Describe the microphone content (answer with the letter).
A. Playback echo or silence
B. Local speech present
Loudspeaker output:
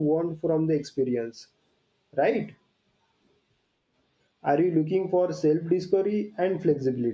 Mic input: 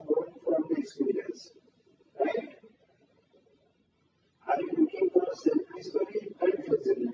A